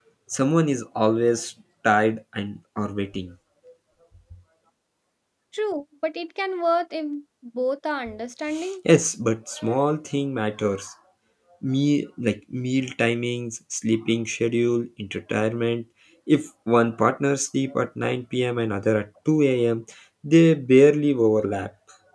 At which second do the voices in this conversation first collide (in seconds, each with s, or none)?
none